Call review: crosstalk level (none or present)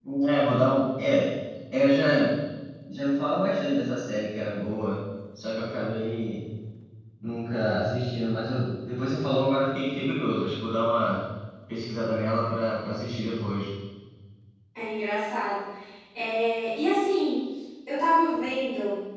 none